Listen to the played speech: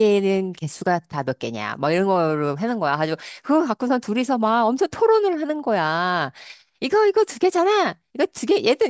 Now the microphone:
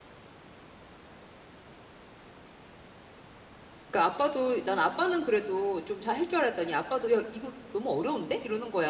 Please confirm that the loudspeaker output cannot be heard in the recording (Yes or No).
Yes